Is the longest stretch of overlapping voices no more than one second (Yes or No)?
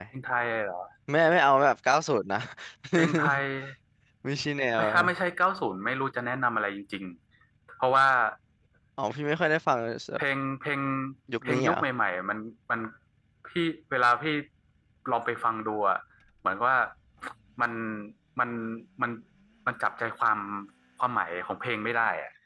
Yes